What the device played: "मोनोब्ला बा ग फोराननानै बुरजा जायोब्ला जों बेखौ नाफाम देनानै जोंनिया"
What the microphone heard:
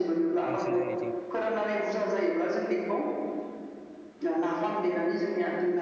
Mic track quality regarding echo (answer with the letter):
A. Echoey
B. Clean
A